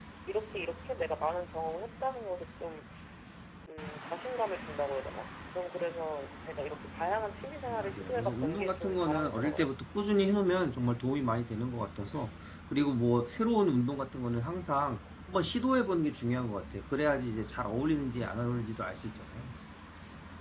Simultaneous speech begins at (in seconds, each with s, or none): 7.7 s